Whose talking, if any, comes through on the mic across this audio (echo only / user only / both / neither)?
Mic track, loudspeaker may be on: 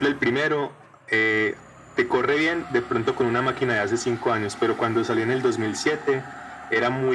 echo only